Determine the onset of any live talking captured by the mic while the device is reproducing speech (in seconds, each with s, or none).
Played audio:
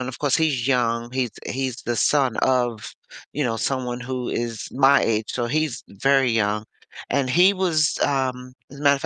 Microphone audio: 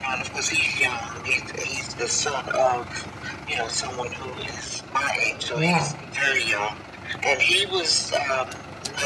5.5 s